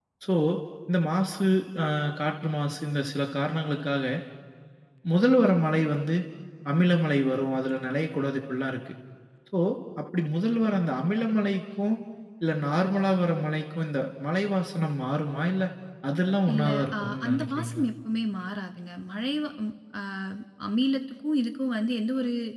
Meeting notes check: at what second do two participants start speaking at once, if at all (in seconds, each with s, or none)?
16.5 s